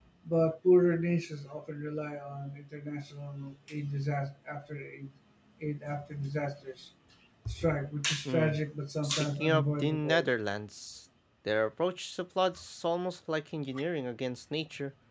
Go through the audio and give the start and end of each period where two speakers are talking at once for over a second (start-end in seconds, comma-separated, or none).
9.0-10.3